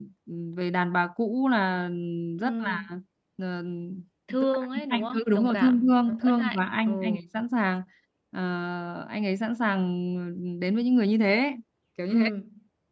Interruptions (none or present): present